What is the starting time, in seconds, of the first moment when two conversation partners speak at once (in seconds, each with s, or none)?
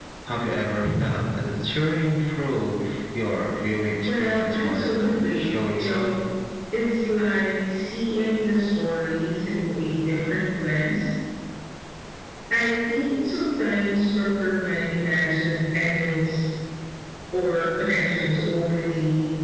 4.1 s